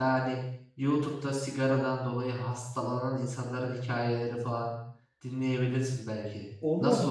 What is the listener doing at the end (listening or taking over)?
taking over